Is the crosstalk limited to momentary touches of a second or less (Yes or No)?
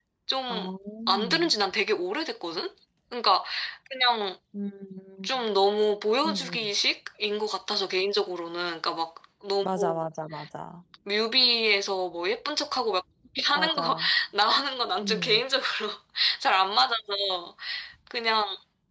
Yes